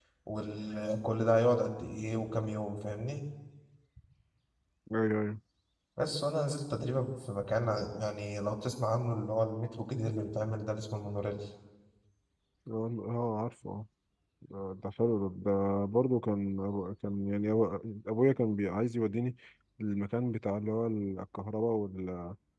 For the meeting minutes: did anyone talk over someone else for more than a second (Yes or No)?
No